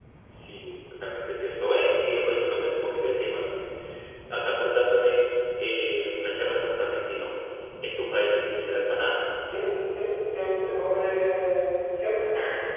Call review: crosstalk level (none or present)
none